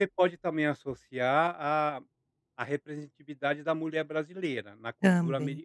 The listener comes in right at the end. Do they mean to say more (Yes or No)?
No